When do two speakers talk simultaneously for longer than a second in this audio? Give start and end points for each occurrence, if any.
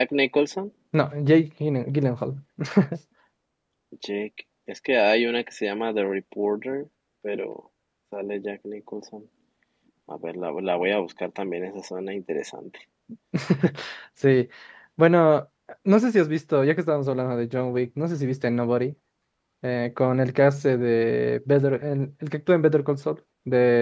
none

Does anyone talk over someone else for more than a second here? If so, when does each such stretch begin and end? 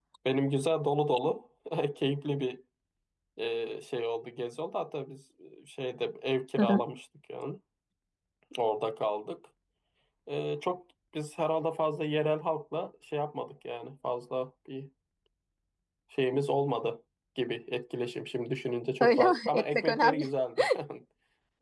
19.0-20.2

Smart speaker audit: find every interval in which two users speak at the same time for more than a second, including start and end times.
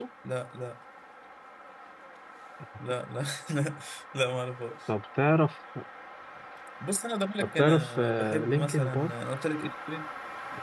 7.4-9.1

